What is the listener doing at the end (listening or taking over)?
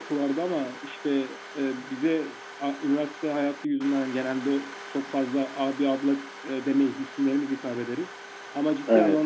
listening